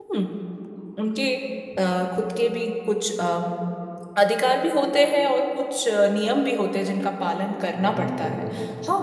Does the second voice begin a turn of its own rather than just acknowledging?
Yes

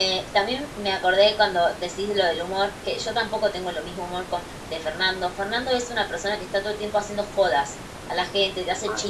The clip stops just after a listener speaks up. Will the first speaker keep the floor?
Yes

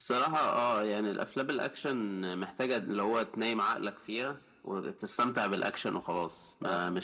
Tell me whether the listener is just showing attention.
Yes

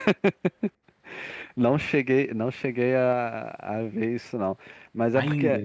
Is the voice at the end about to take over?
No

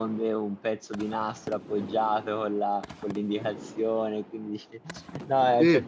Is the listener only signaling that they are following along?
Yes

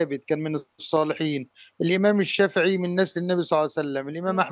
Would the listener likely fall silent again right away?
Yes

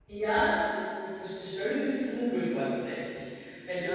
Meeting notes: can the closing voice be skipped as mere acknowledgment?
No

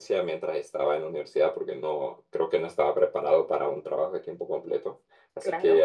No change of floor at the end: Yes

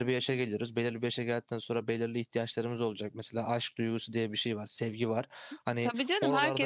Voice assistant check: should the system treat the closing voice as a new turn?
Yes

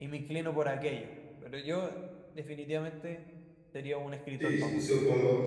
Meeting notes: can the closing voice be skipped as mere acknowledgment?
No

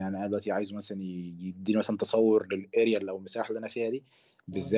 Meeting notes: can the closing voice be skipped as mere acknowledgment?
Yes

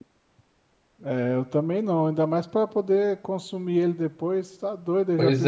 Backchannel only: No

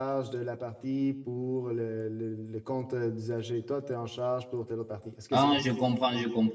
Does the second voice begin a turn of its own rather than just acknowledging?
Yes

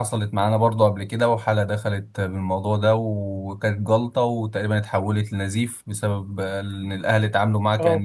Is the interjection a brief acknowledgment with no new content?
Yes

